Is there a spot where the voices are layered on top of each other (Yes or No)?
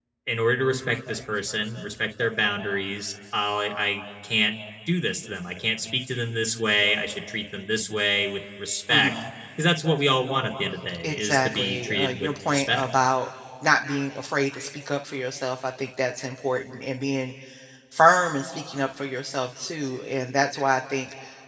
Yes